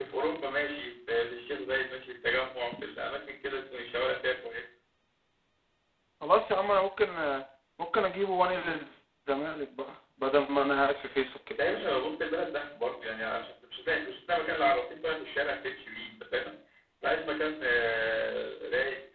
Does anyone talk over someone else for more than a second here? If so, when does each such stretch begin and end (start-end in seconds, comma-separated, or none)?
none